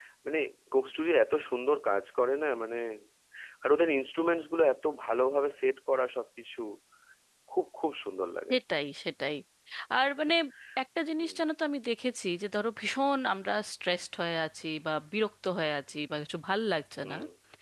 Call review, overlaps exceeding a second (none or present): none